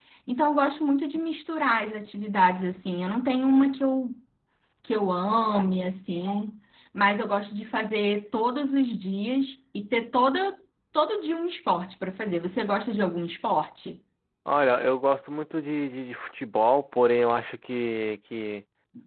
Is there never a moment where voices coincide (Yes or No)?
Yes